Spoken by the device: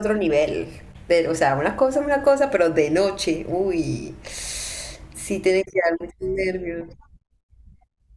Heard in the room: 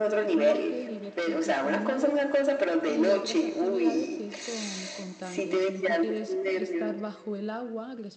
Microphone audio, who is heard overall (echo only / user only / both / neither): both